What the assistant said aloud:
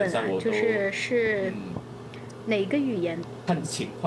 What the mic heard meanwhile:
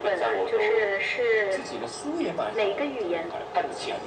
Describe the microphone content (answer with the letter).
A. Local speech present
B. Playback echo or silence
A